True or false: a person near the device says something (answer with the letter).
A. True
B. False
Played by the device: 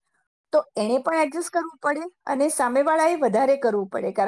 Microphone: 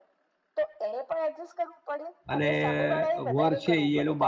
A